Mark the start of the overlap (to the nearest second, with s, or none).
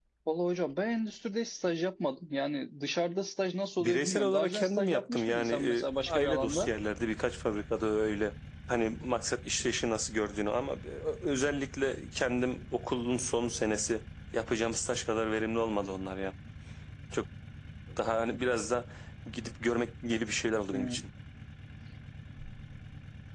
4 s